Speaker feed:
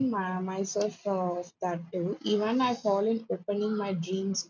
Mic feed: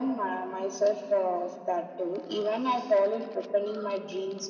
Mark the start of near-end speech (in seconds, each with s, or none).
none